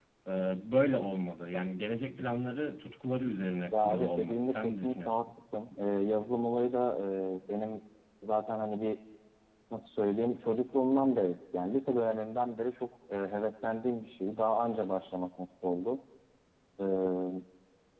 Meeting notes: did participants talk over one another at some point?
Yes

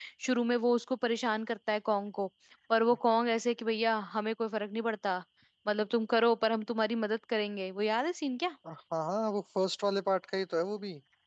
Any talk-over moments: No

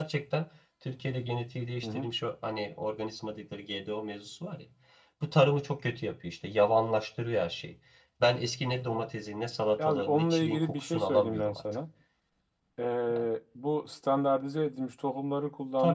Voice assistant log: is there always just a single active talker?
No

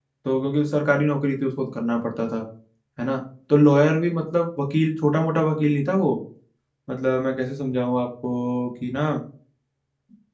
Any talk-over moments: No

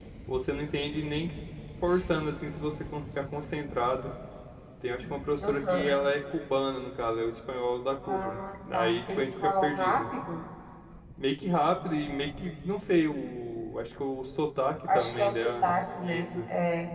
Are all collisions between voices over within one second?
No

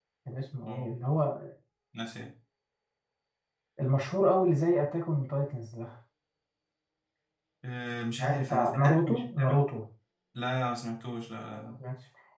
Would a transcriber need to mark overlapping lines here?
Yes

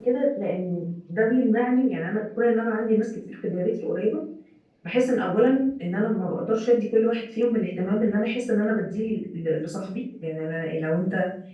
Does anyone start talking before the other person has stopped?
No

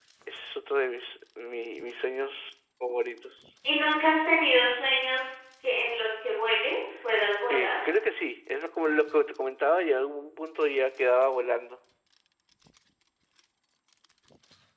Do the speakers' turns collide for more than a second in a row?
No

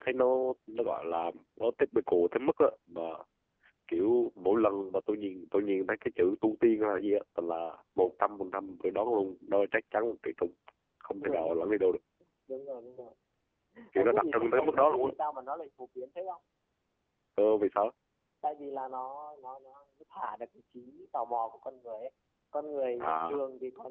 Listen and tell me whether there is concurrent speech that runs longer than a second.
Yes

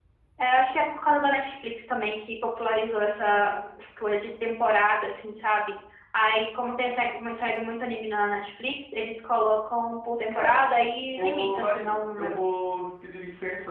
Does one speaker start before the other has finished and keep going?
Yes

